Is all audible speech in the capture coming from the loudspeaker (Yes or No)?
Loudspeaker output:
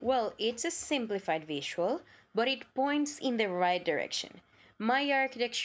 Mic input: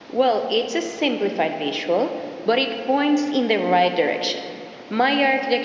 Yes